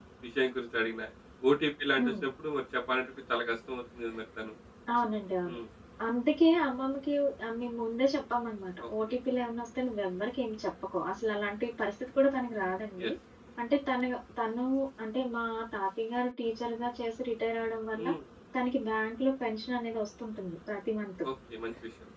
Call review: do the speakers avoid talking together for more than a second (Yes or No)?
Yes